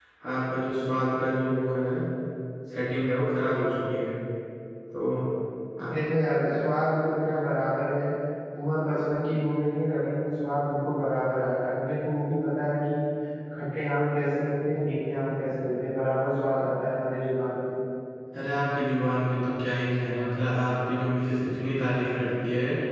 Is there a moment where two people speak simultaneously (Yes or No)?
No